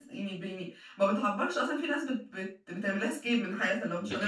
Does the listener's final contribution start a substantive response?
Yes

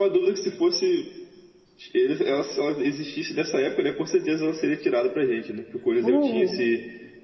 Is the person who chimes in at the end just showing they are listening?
Yes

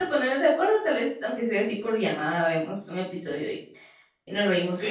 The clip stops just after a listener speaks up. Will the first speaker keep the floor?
No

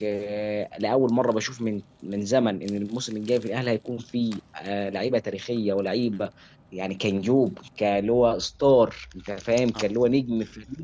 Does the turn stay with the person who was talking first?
Yes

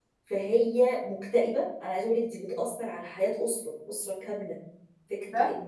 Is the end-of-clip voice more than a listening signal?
No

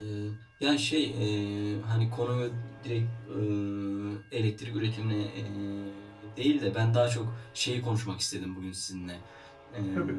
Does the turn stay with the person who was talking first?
Yes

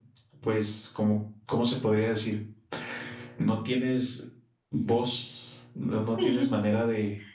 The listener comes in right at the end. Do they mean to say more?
No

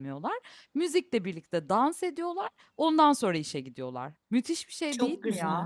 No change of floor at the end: No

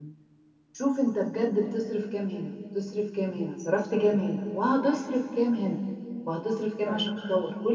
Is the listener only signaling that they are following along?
Yes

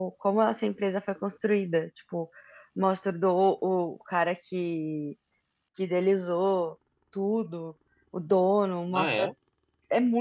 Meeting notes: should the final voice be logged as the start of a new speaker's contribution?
No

